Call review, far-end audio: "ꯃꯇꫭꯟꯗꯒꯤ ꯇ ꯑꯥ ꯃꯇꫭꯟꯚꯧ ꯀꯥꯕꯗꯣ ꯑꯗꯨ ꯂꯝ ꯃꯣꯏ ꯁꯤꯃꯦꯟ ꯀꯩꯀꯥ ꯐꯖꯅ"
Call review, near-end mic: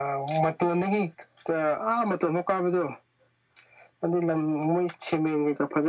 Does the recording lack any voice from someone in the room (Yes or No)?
Yes